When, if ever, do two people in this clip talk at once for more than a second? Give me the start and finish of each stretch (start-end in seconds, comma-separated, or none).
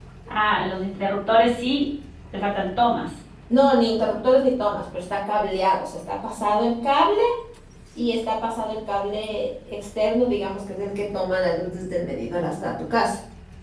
none